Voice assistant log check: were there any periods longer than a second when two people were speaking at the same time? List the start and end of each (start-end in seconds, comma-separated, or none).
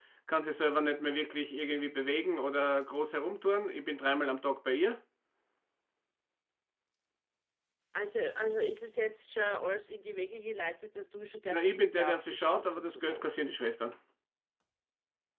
11.5-13.3